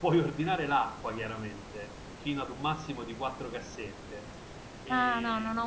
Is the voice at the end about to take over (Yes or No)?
Yes